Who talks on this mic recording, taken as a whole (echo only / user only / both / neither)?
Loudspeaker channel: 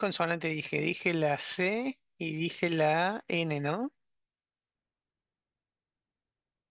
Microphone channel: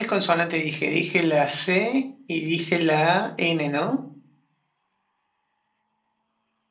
echo only